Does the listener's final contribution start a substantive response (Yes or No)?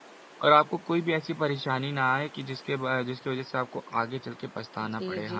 Yes